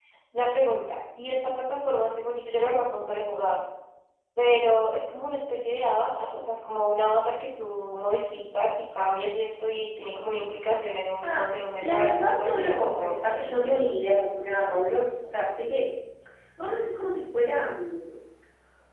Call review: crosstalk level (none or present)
present